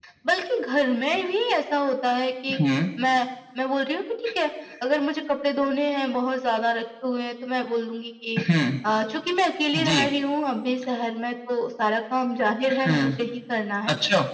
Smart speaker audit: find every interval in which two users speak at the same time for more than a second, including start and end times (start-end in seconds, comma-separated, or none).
none